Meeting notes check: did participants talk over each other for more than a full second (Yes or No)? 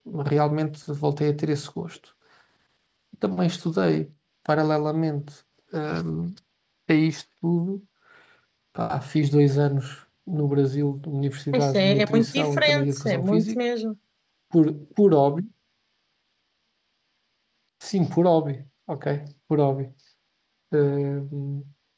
Yes